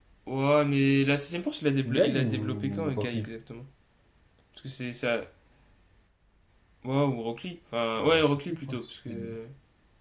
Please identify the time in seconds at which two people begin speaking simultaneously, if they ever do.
2 s

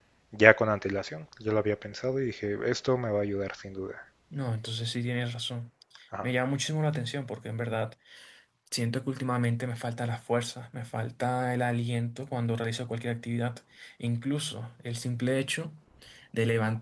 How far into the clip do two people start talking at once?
none

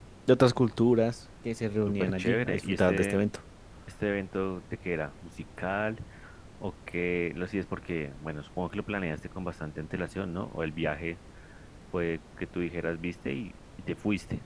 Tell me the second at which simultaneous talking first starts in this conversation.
2 s

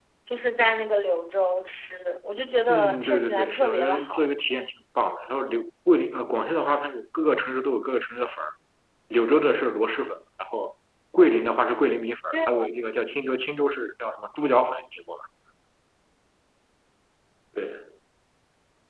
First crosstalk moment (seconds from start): 3 s

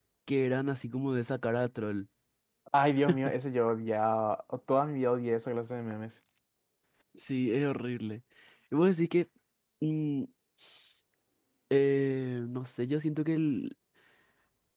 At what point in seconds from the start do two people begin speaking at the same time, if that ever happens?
none

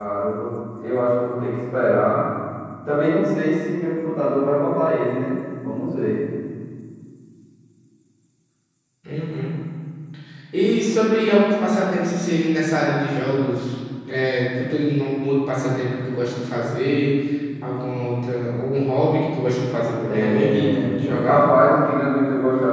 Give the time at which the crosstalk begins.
20 s

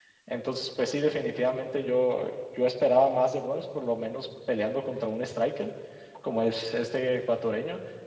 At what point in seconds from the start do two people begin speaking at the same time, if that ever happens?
none

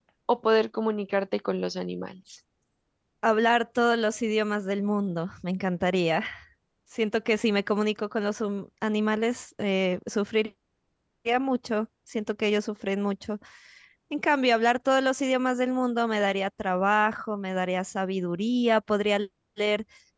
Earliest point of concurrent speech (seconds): none

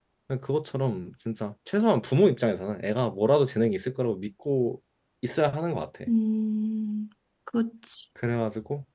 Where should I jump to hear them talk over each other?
none

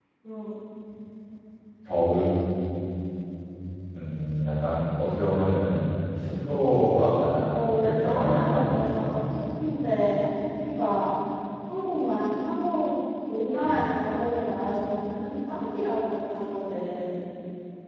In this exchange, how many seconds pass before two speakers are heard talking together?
7 s

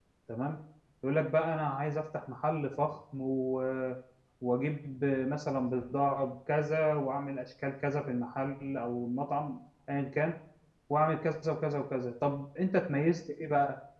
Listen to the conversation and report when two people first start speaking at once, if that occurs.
none

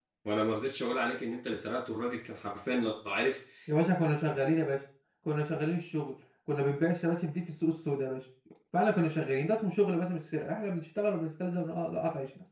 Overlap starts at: none

